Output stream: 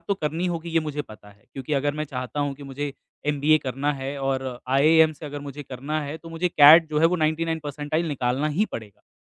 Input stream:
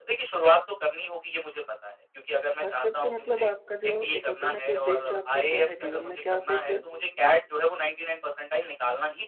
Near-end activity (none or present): present